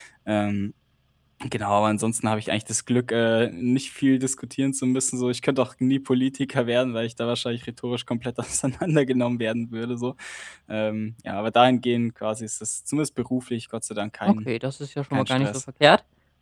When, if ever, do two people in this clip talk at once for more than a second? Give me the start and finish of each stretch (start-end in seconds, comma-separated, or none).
none